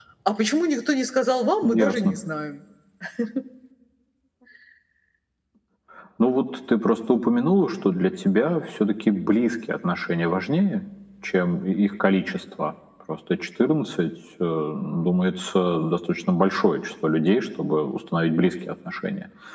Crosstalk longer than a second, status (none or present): none